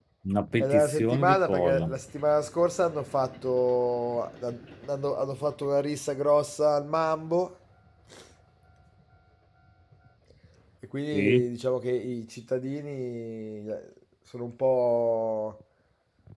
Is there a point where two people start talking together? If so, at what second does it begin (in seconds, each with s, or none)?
0.6 s